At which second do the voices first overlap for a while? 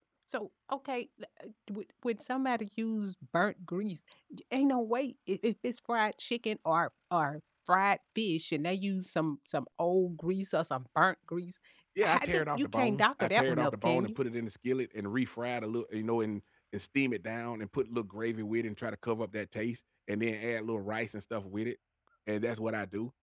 12.0 s

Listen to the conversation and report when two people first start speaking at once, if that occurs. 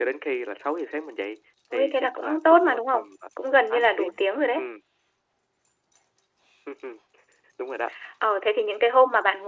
1.7 s

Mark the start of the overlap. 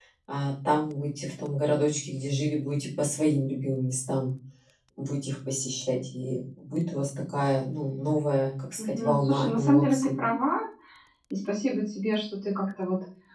8.8 s

